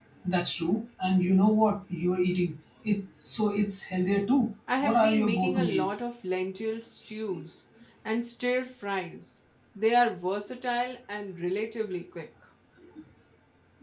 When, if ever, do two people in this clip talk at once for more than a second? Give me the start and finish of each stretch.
4.8-6.0

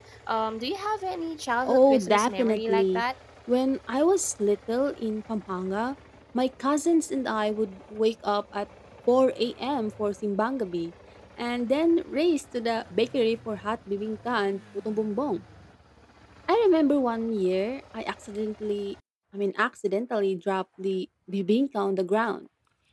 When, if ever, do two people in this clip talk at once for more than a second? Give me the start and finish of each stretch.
1.6-3.0

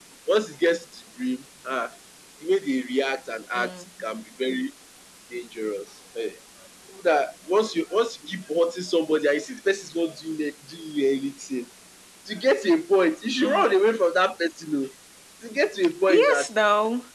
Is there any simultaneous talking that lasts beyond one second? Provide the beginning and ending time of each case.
none

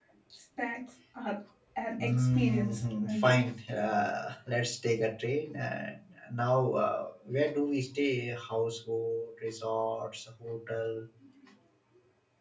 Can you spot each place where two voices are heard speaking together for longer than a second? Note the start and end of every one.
2.0-3.4

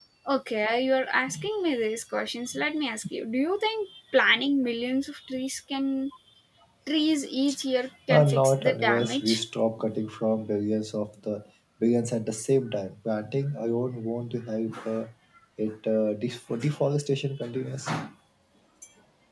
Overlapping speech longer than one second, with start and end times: 8.1-9.4

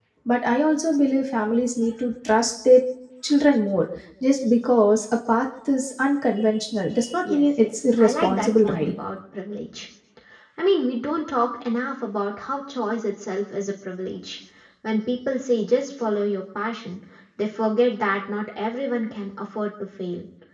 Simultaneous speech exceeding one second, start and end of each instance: 7.3-8.9

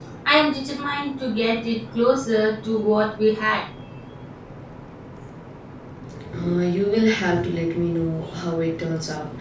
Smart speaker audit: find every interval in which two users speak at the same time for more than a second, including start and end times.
none

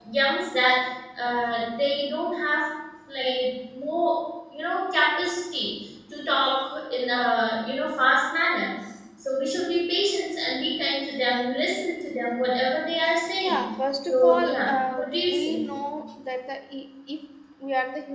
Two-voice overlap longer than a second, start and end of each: 14.0-15.6

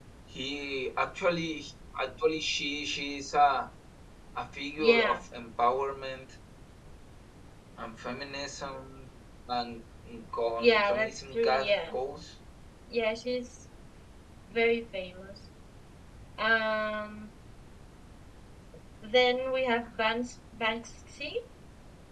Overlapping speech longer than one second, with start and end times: 10.6-11.9

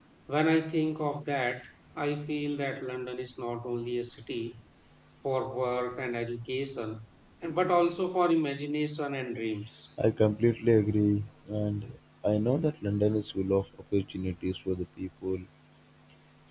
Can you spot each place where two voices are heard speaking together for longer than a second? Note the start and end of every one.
none

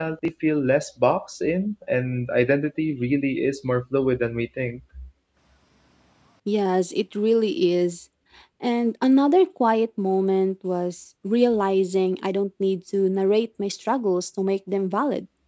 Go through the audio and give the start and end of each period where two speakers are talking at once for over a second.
none

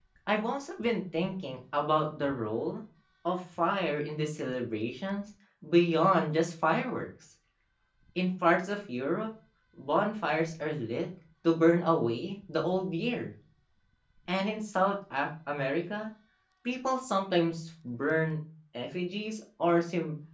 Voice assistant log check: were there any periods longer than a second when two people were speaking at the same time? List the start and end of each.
none

